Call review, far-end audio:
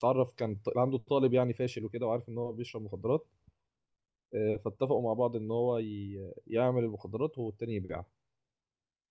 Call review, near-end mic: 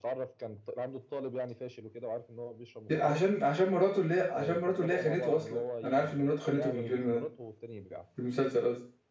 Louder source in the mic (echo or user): user